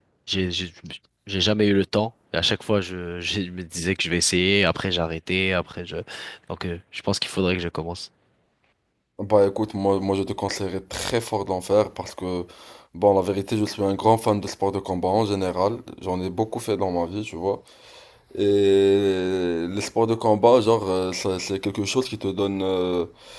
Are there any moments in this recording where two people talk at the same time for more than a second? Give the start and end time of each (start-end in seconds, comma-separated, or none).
none